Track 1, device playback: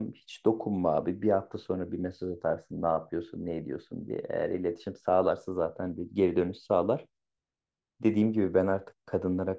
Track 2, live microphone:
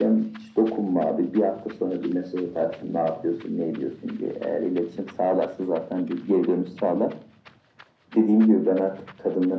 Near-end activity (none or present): none